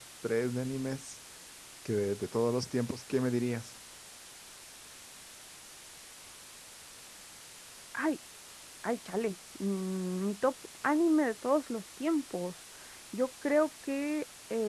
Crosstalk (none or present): none